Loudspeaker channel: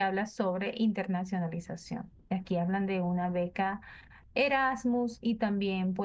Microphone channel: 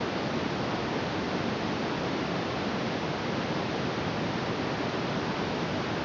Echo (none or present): none